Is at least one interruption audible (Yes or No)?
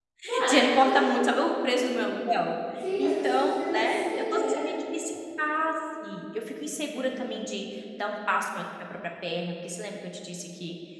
Yes